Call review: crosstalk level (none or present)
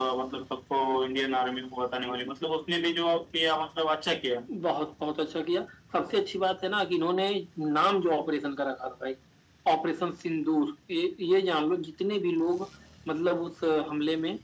none